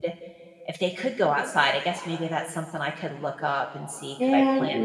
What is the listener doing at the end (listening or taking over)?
taking over